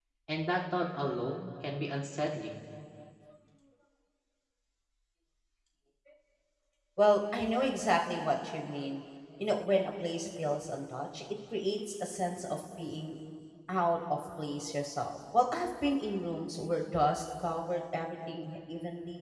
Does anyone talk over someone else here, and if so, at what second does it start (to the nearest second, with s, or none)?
none